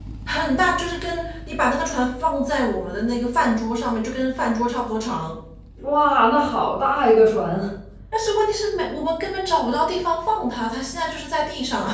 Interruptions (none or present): none